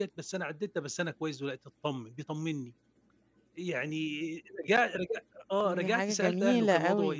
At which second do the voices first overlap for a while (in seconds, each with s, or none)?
5.6 s